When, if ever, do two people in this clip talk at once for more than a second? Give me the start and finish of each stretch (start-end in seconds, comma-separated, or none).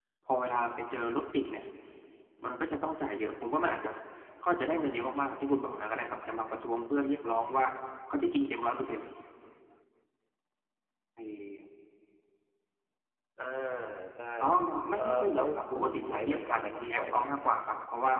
15.0-17.3